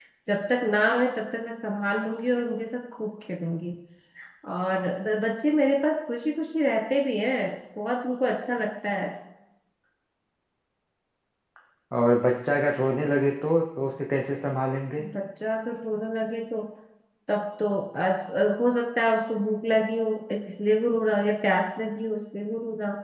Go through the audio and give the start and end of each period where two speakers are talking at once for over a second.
none

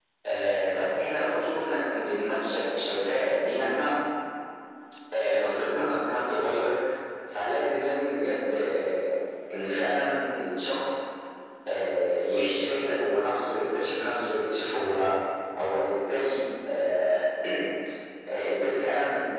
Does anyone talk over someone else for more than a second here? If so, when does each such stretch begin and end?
none

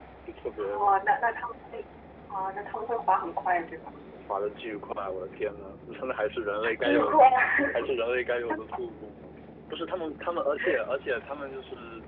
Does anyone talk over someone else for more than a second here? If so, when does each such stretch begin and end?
none

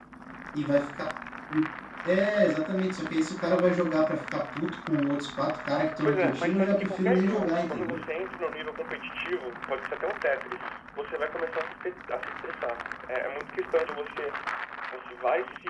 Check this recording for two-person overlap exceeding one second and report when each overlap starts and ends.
6.0-8.0

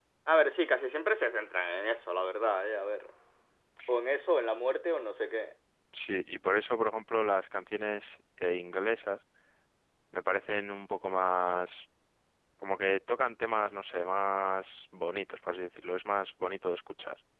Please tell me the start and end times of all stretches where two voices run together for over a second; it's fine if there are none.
none

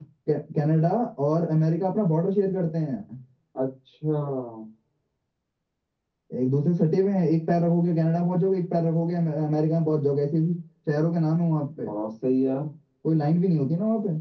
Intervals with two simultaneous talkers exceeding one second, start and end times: none

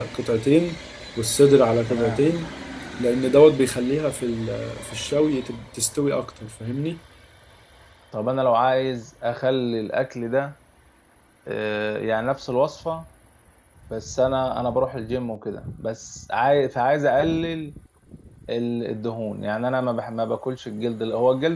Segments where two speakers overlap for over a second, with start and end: none

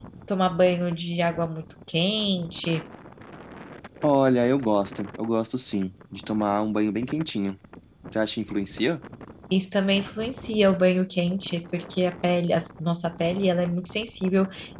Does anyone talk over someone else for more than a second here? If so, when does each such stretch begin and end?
none

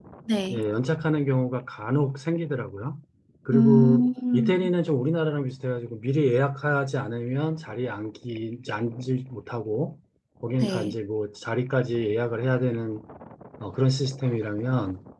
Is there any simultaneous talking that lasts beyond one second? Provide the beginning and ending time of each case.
3.5-4.7

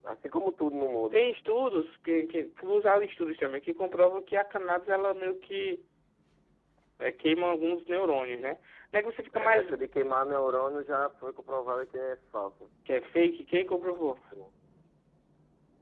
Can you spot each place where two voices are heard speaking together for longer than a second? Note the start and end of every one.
none

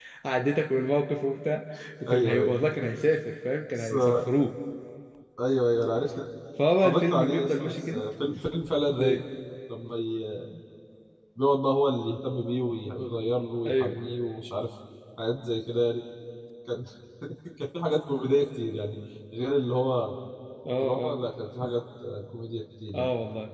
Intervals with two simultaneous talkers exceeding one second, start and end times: 6.8-8.1

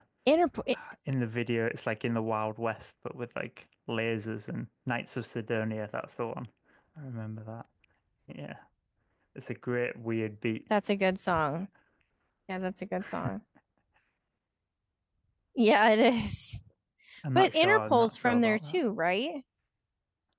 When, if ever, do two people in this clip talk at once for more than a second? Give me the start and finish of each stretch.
17.4-18.8

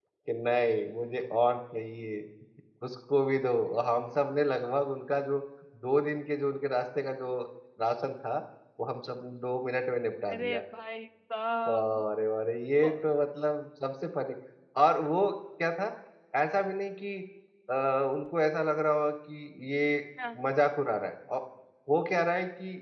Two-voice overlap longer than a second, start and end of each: none

